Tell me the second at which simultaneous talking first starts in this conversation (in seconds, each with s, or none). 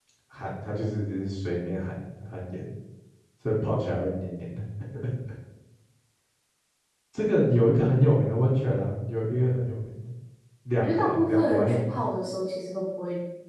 10.8 s